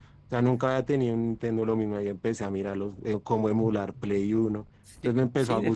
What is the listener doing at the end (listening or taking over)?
taking over